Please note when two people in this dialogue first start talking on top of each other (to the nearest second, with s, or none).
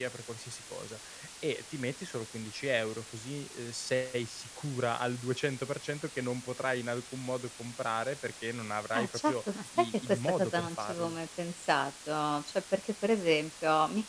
9 s